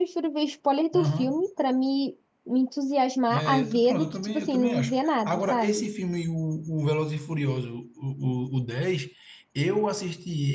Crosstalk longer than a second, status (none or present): present